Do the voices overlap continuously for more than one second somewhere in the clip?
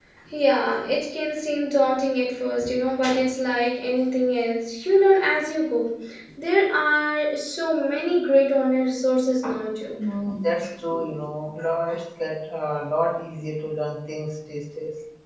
No

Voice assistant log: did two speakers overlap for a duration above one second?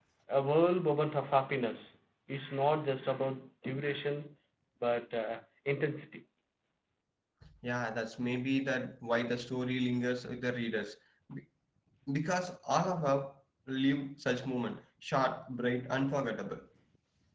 No

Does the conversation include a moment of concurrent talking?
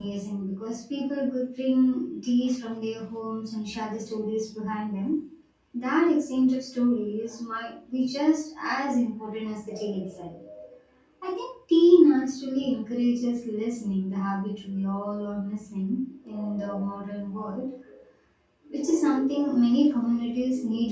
No

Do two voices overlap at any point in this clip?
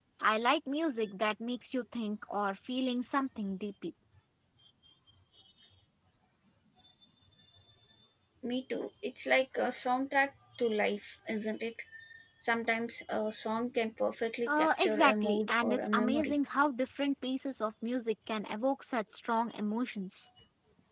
Yes, from 14.5 s

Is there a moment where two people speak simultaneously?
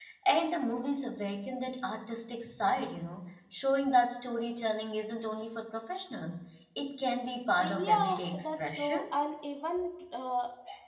Yes, from 7.6 s

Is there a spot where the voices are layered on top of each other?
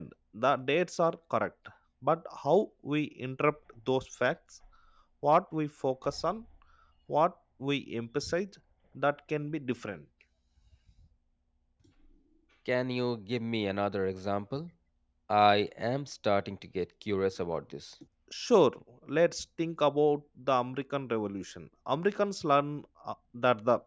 No

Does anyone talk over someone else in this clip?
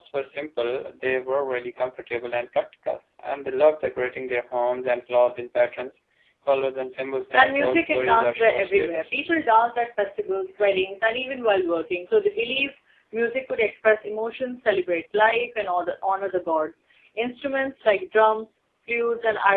Yes, from 7.3 s

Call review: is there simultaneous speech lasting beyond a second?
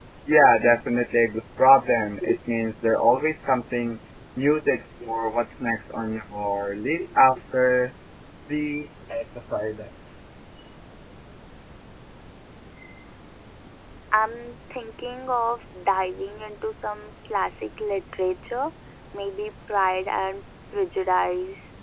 No

